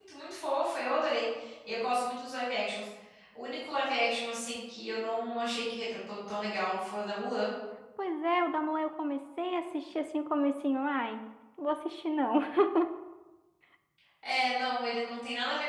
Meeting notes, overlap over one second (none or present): none